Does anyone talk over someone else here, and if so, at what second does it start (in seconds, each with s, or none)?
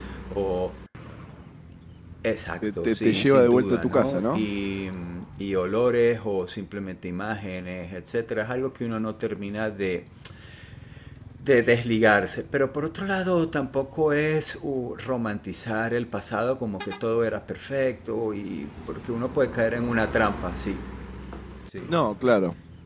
2.6 s